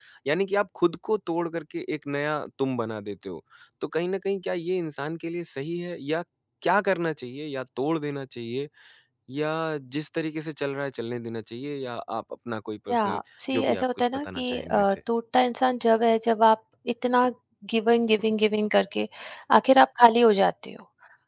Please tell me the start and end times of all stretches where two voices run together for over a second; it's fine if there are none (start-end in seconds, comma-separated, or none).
13.5-14.9